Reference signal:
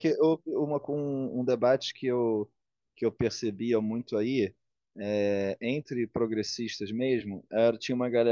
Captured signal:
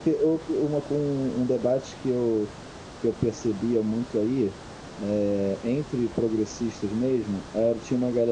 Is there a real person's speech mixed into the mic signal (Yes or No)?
No